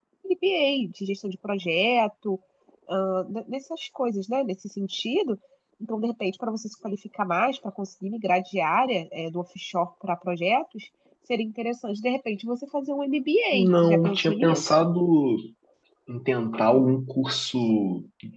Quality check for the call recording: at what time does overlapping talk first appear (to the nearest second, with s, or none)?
14 s